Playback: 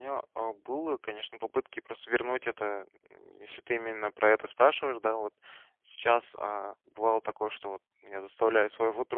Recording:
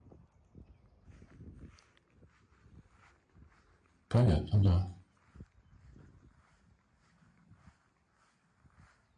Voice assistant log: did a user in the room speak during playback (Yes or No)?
Yes